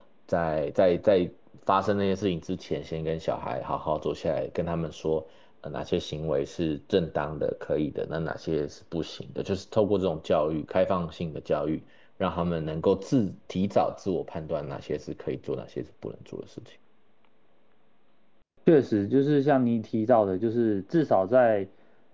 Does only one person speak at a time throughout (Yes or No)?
Yes